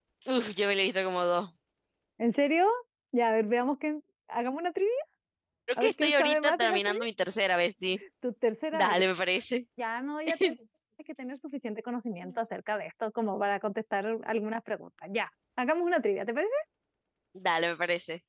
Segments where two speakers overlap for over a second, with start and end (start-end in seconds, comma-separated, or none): 5.8-7.0